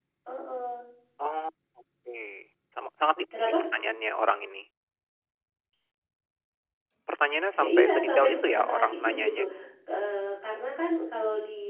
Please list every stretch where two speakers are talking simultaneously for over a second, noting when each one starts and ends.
7.5-9.4

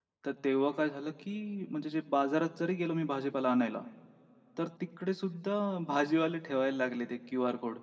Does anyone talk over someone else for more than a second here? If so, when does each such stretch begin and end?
none

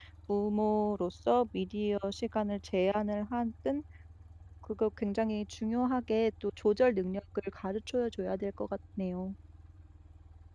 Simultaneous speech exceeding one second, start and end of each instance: none

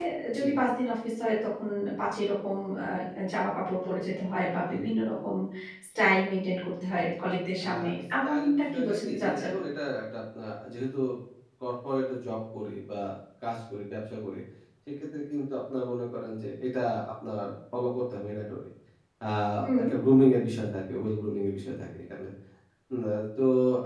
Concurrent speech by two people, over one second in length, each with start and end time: 8.2-9.5

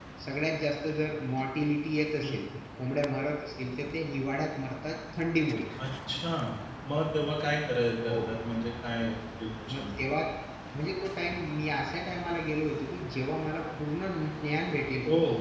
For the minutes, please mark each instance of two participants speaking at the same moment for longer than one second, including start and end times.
none

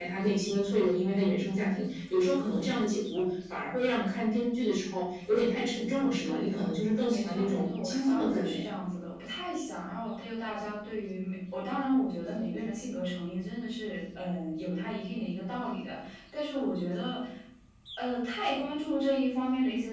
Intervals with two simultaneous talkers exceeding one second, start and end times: 7.1-8.6

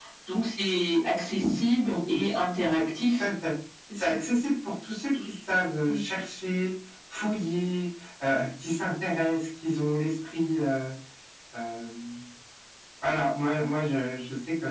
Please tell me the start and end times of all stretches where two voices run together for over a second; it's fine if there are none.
1.9-3.3

